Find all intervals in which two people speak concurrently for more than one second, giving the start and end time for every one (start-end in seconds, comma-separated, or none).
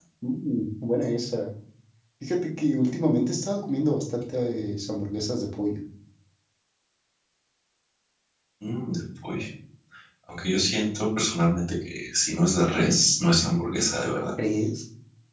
none